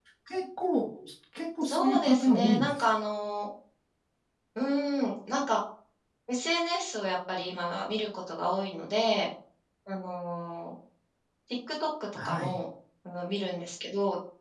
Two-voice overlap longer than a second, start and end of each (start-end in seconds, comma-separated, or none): 1.6-2.9